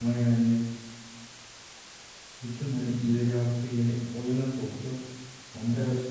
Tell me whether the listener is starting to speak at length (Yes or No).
No